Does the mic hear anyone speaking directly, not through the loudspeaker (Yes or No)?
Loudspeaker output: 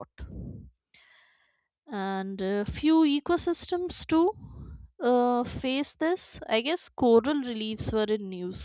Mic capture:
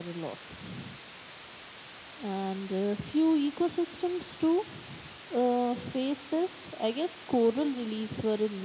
No